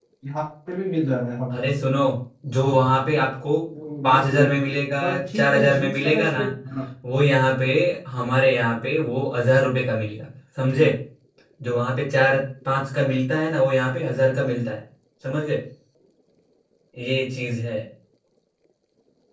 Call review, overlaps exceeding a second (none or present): present